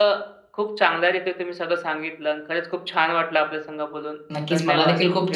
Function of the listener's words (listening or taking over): taking over